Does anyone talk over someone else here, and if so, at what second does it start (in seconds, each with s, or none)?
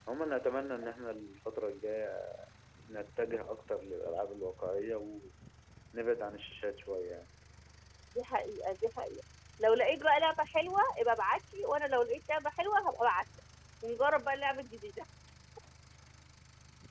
none